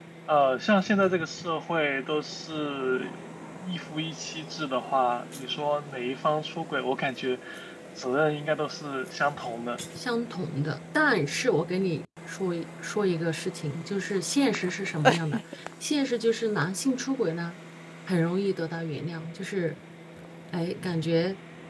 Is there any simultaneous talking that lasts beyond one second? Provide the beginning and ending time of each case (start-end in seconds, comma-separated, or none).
none